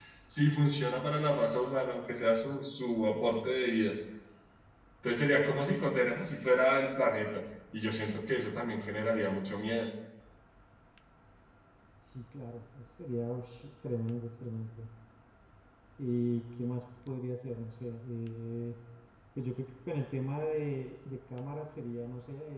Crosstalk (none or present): none